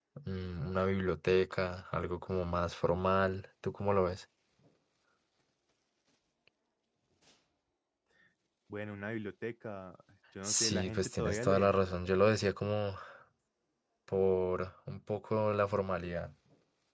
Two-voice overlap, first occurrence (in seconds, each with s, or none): 10.4 s